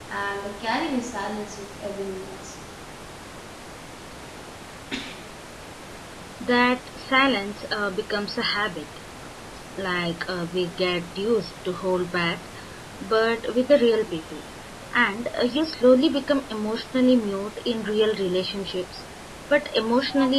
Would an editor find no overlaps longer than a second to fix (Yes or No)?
Yes